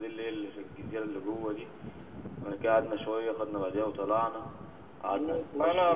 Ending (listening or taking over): taking over